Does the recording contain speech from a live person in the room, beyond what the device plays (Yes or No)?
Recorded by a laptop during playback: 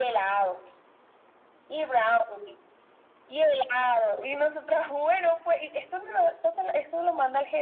No